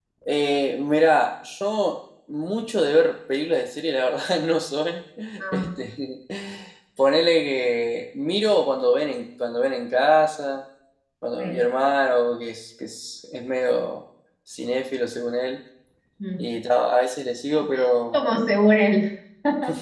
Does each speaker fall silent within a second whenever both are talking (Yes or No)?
Yes